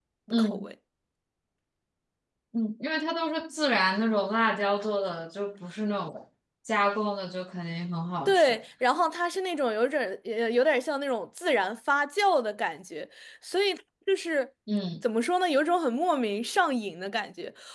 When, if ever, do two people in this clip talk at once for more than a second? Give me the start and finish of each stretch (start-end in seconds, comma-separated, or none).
none